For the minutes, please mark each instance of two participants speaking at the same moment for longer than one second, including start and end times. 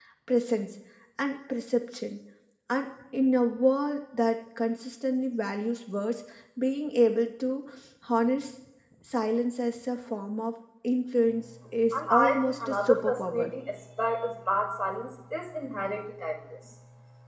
11.9-13.5

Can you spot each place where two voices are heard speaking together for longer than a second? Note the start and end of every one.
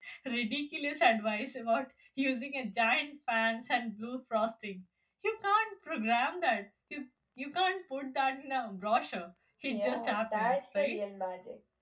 9.7-11.0

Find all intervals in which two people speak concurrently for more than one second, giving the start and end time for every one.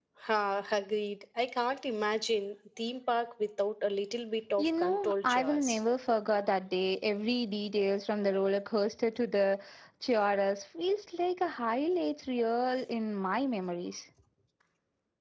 4.6-5.8

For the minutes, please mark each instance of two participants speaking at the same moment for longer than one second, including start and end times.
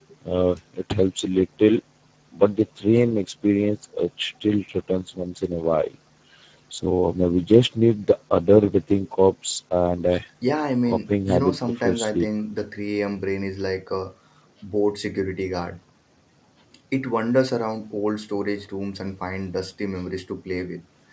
10.9-12.3

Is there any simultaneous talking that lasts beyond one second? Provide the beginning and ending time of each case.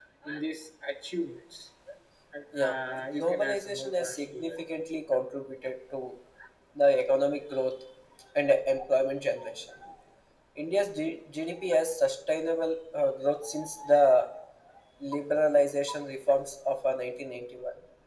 3.1-4.6

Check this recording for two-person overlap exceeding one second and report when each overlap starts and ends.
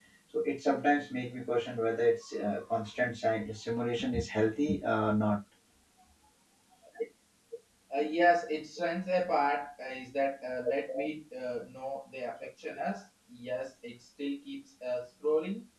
none

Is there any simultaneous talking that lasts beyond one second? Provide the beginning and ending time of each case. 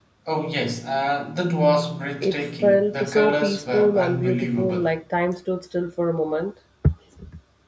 2.2-4.9

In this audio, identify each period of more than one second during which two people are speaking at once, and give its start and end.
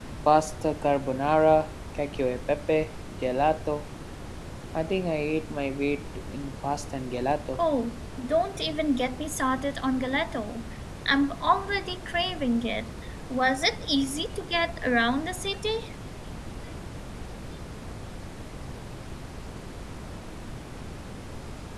none

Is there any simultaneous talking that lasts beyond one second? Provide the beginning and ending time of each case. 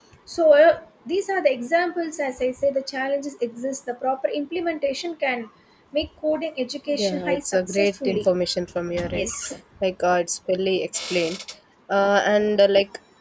6.9-8.2

